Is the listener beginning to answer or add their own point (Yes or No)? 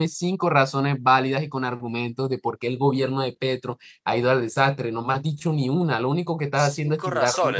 Yes